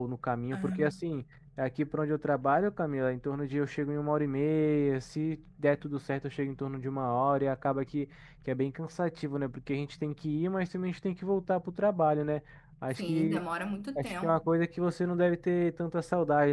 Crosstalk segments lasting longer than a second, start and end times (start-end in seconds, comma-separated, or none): none